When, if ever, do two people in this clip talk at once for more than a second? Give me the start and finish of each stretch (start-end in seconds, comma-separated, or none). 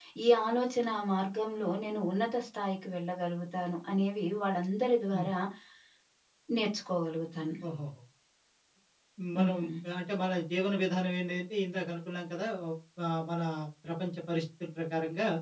none